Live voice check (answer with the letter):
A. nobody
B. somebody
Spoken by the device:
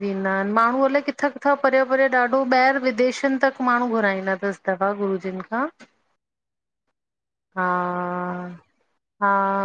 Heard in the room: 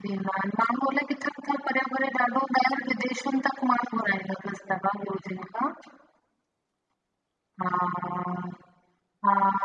A